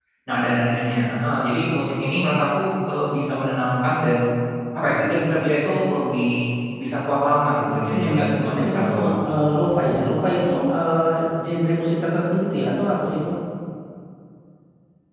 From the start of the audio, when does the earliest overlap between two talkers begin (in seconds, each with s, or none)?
7.9 s